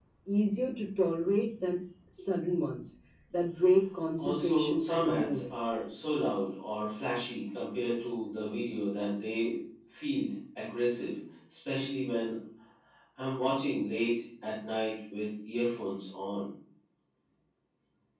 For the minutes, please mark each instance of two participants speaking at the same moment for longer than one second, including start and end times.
4.2-5.4

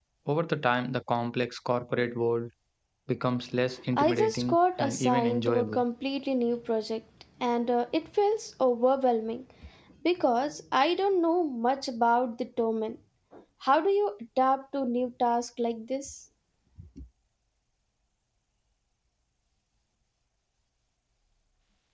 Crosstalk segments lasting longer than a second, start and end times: 3.9-5.8

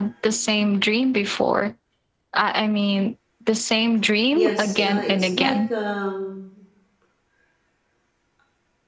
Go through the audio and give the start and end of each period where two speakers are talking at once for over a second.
4.3-5.6

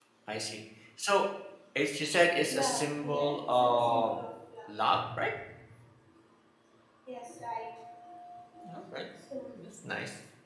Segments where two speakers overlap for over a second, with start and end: 2.5-4.2

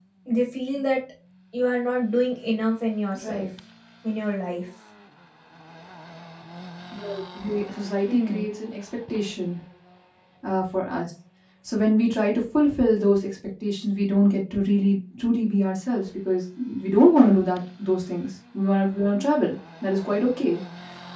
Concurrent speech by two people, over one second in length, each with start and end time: none

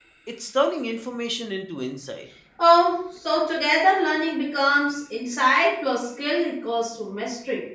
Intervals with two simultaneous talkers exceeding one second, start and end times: none

